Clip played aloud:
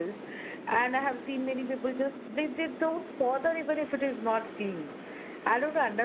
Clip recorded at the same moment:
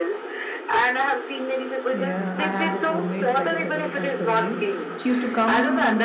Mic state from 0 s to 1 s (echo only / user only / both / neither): echo only